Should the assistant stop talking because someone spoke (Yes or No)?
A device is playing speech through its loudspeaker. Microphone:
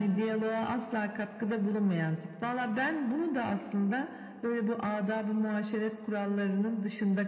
No